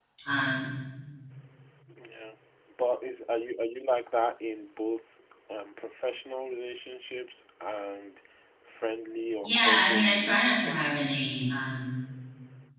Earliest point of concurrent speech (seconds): 9 s

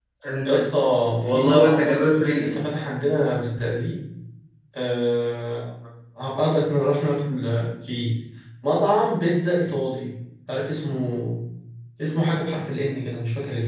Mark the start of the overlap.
1 s

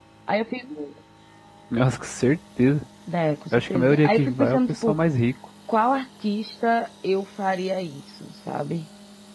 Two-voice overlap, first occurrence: 4 s

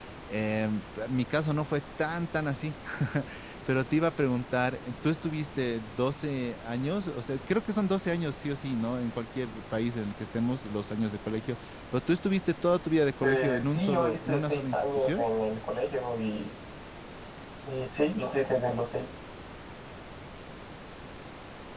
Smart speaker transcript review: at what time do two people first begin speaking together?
13 s

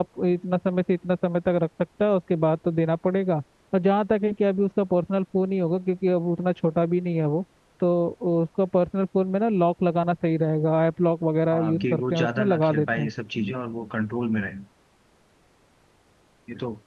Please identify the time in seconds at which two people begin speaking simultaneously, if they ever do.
12 s

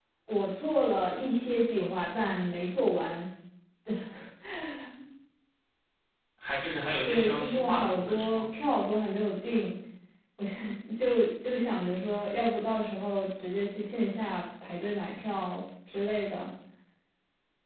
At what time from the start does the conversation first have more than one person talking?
7 s

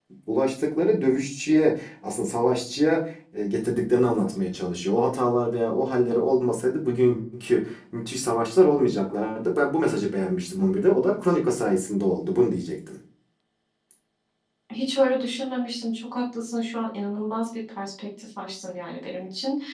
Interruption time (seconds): none

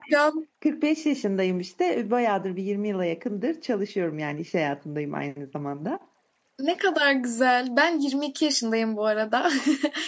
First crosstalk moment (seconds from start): none

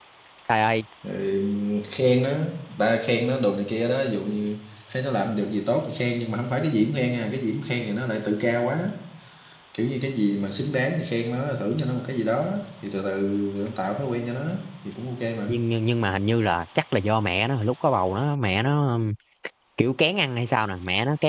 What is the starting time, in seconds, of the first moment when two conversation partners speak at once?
none

